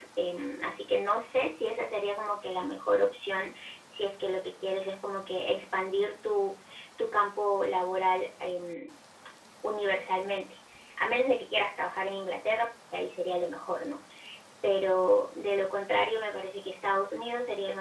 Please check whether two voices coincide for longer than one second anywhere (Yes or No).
No